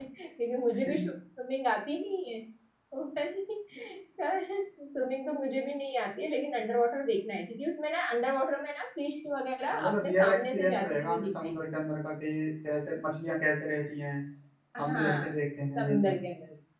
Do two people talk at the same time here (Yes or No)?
Yes